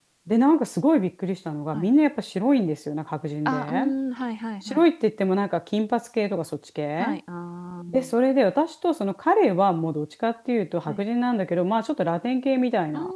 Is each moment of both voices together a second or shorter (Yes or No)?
Yes